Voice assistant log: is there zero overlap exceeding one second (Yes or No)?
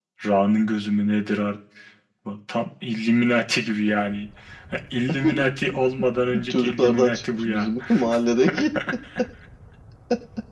No